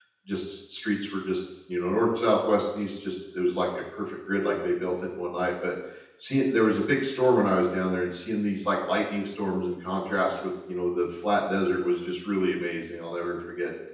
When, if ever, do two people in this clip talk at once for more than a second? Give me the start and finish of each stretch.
none

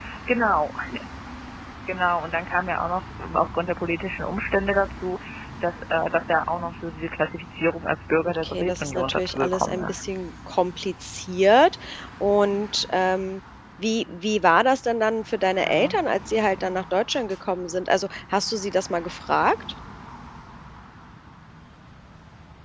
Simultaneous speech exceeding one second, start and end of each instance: 8.2-10.0

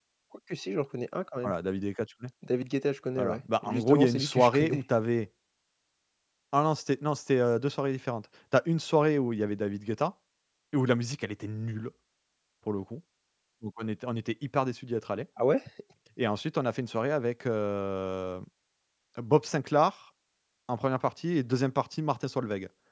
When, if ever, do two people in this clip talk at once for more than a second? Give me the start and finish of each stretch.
3.2-4.8

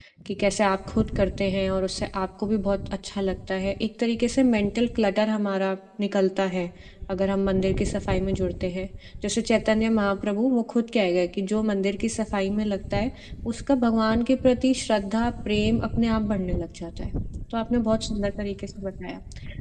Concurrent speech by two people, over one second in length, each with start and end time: none

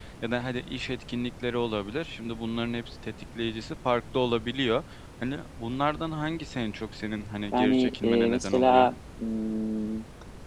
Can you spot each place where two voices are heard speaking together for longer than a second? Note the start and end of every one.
7.5-8.9

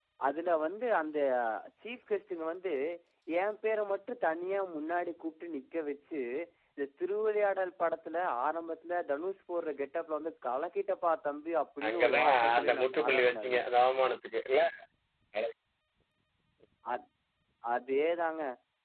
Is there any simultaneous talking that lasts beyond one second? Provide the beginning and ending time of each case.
11.9-13.6

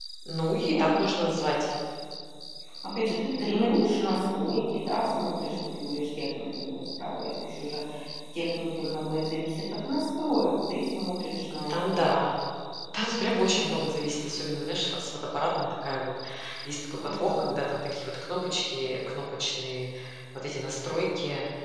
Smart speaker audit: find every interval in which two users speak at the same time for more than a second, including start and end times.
none

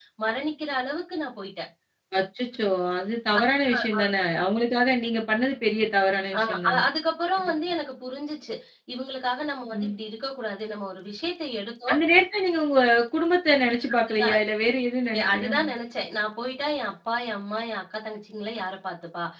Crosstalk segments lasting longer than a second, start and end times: none

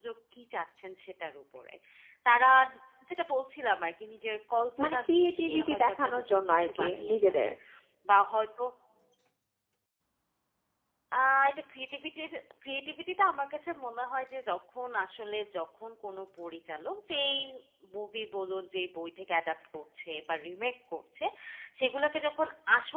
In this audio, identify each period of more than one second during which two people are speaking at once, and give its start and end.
4.8-7.5

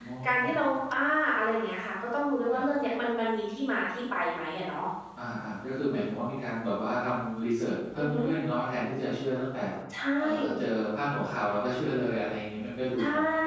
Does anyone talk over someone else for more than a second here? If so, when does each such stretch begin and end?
none

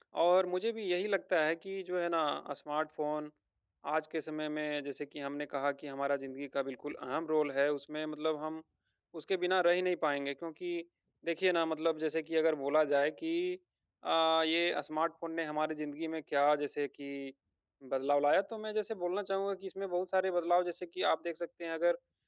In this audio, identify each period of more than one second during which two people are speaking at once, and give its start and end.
none

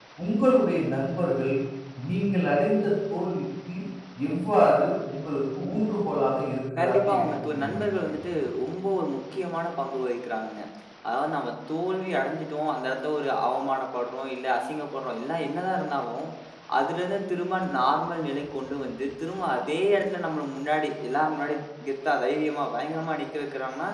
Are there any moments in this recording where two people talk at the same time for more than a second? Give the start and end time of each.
6.8-8.2

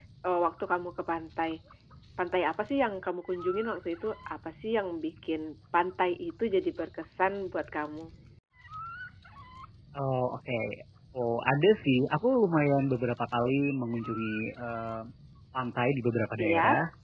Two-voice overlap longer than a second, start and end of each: none

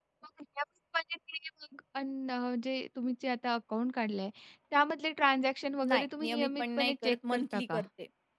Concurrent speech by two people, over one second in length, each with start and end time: 5.9-7.8

